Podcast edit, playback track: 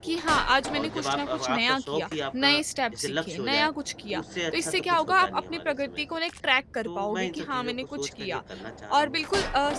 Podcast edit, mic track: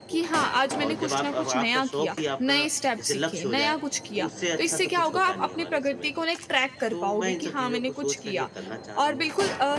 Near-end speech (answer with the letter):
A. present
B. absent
B